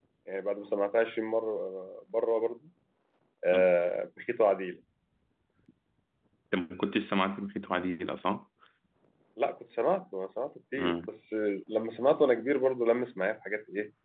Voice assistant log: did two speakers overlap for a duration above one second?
No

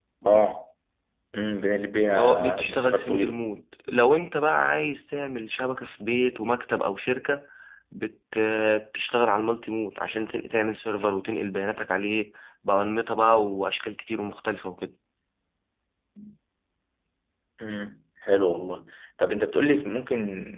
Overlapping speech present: Yes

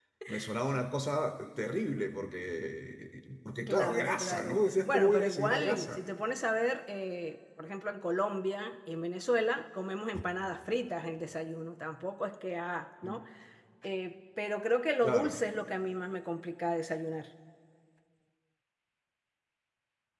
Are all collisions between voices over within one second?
No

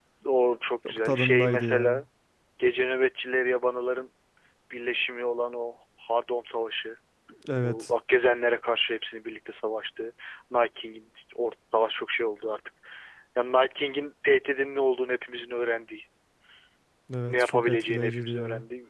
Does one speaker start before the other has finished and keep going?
Yes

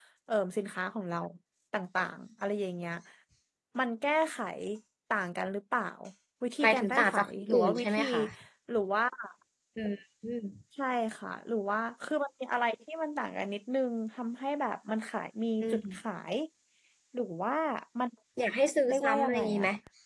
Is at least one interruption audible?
Yes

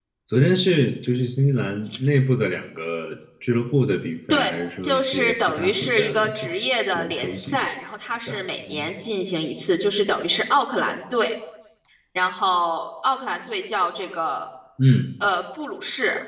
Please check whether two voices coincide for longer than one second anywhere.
Yes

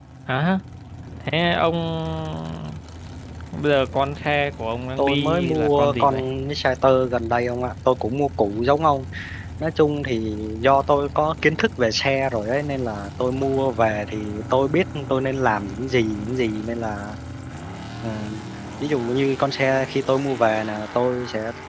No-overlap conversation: No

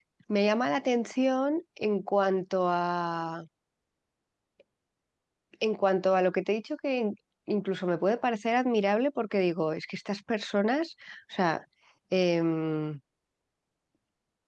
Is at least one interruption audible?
No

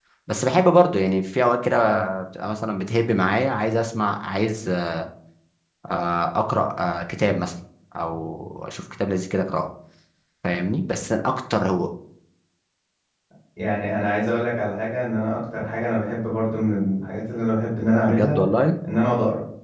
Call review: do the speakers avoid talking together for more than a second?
Yes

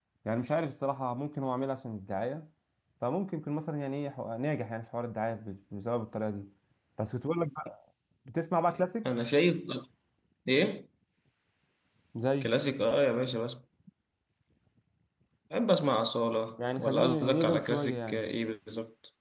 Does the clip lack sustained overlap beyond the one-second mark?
No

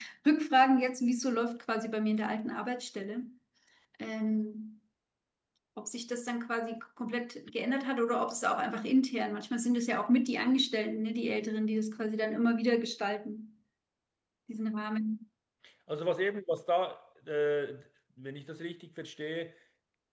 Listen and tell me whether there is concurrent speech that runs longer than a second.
No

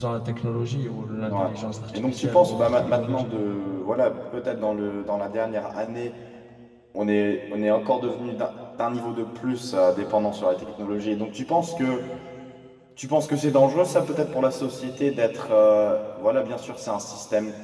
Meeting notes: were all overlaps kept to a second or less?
No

